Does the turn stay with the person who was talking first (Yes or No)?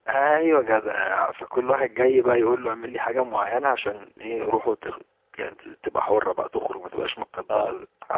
Yes